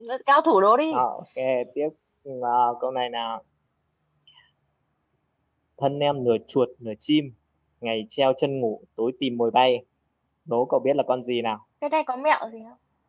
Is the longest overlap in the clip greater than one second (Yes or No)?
No